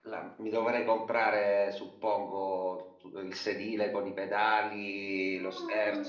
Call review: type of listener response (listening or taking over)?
taking over